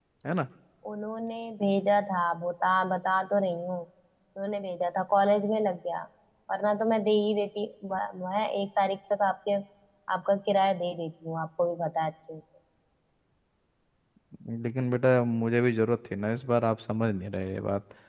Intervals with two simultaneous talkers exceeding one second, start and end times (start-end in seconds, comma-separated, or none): none